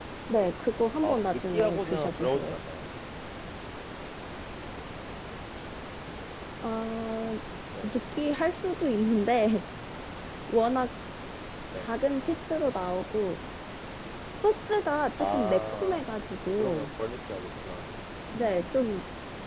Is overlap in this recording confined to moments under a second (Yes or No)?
No